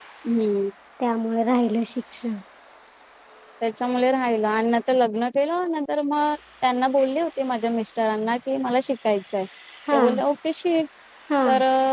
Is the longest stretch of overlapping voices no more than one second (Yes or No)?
Yes